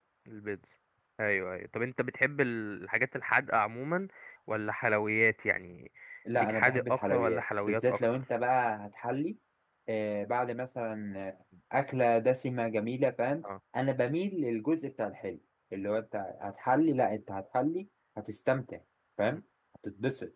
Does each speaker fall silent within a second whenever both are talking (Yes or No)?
No